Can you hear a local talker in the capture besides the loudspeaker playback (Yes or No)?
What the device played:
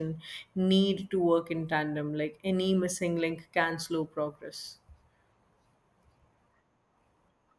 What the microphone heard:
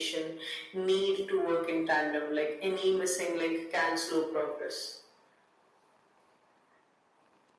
No